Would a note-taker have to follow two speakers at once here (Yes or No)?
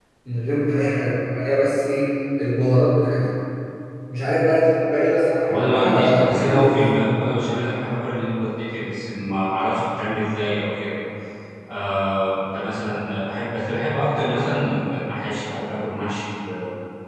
Yes